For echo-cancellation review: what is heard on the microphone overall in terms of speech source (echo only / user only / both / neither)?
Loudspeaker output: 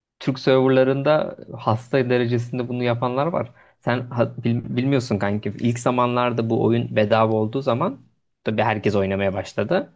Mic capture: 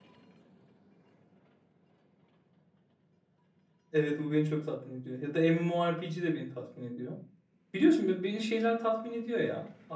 user only